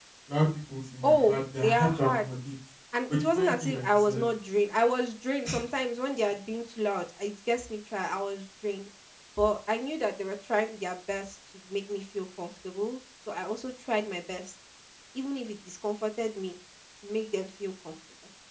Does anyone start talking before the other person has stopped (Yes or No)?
Yes